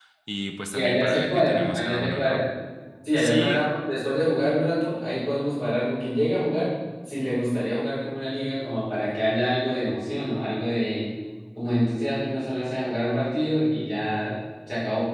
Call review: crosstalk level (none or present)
present